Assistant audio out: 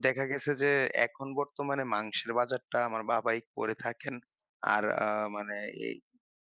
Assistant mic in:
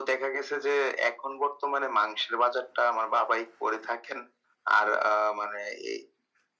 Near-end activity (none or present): none